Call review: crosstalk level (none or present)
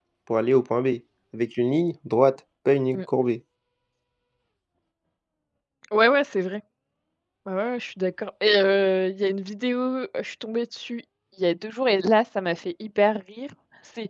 none